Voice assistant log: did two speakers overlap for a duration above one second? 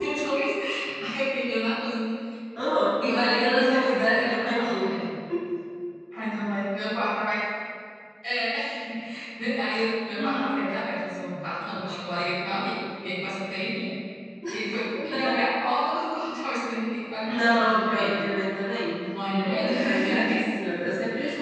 Yes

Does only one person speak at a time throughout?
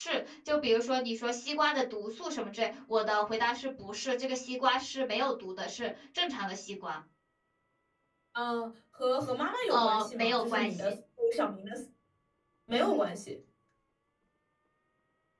No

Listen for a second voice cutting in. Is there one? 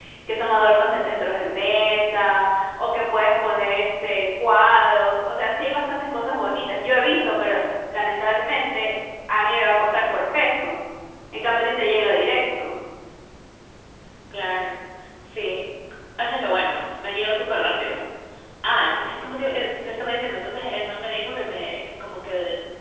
No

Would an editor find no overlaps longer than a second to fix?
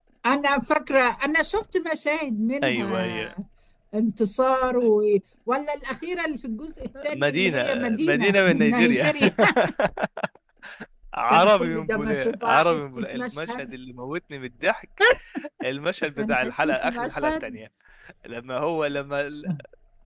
No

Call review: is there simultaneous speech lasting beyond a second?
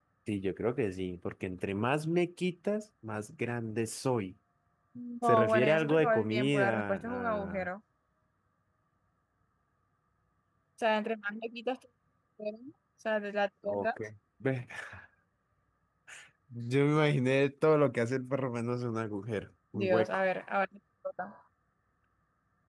Yes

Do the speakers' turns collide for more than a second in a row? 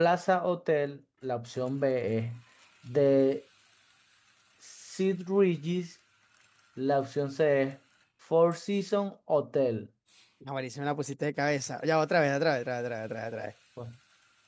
No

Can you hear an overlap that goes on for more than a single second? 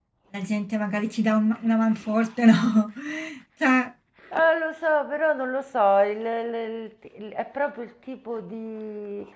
No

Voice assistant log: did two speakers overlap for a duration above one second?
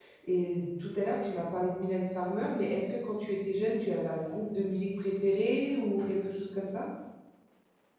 No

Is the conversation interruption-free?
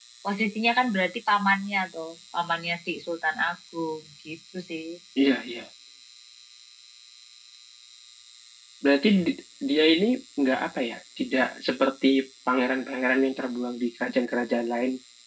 Yes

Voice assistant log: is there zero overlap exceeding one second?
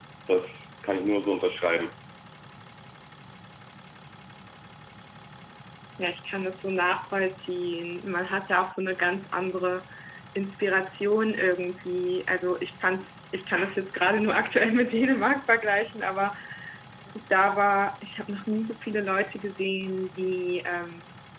Yes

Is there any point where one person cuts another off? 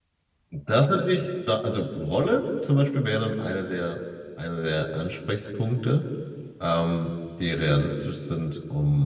No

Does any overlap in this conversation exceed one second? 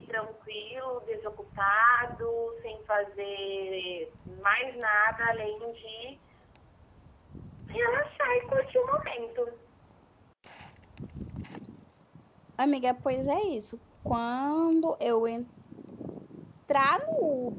No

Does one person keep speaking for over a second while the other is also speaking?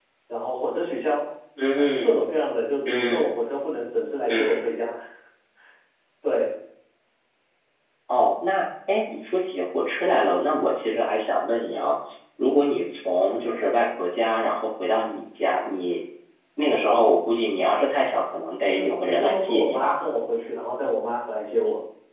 Yes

